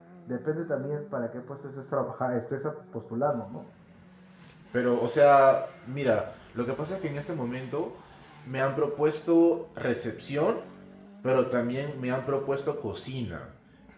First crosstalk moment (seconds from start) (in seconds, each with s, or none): none